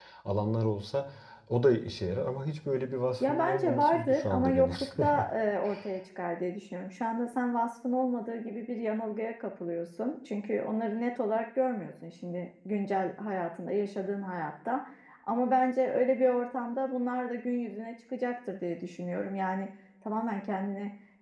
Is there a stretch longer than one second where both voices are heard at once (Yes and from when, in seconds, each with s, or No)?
Yes, from 3.2 s